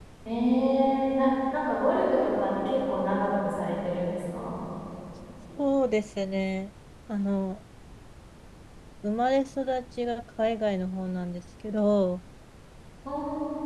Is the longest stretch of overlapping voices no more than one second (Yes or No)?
Yes